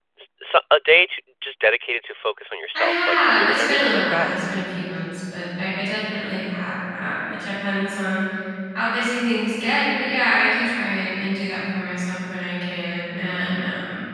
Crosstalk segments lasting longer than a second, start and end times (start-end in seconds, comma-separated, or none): 2.7-4.3